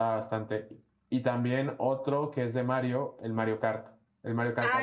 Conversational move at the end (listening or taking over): taking over